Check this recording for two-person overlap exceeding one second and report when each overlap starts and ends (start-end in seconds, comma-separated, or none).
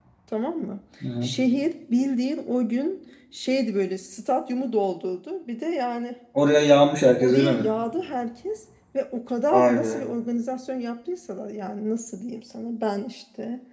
none